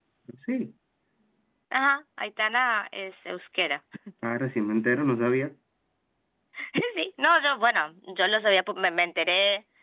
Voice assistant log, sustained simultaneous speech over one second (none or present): none